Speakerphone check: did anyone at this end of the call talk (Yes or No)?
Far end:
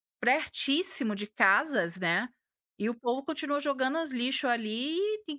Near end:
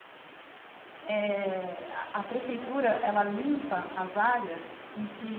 Yes